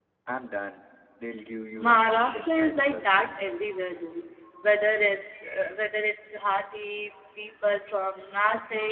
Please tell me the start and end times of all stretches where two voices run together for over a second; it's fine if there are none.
1.8-3.2

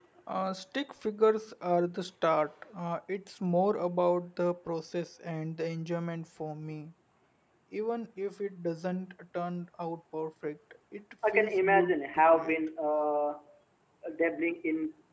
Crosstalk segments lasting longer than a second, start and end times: 11.3-12.6

